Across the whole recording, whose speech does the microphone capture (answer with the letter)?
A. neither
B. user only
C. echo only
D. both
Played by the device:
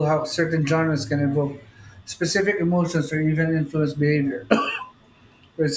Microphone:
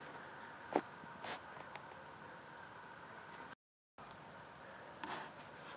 A